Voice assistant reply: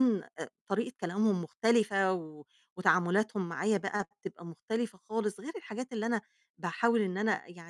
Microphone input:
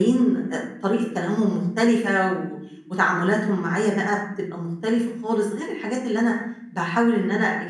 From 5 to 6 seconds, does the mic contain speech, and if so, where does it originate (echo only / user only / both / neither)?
echo only